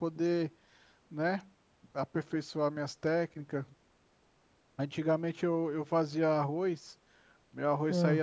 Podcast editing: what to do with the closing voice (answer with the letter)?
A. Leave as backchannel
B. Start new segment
A